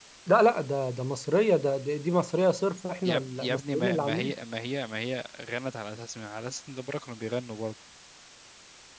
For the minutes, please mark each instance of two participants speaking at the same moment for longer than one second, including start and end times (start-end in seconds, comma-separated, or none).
3.0-4.3